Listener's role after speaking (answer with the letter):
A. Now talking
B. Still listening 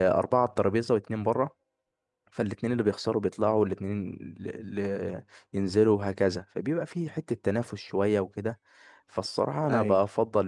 B